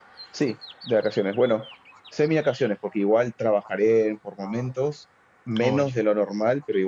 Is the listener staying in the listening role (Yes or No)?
Yes